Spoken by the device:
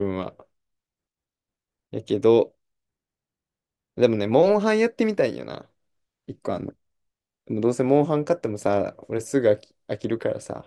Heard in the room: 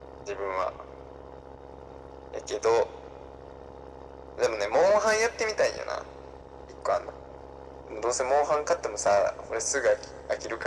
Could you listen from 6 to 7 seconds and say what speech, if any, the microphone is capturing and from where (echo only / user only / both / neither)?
echo only